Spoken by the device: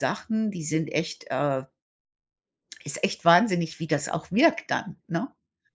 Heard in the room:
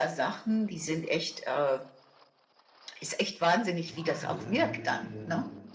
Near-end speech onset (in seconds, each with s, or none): 3.9 s